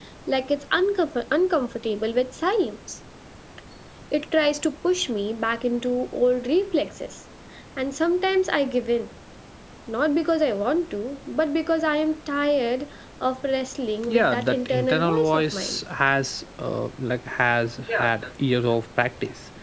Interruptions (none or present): present